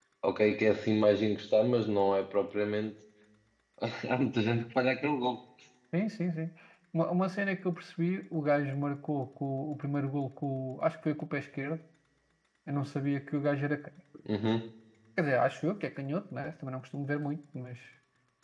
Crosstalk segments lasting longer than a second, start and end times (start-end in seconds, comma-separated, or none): none